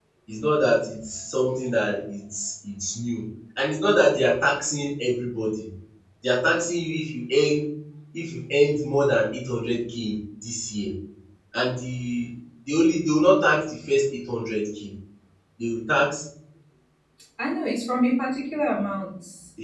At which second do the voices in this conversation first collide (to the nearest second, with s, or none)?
none